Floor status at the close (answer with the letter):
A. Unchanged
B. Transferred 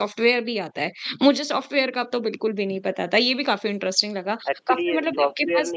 B